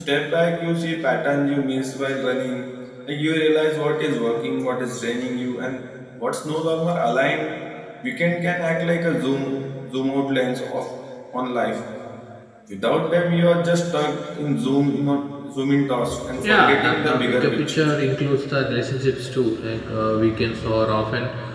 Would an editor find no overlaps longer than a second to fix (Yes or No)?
No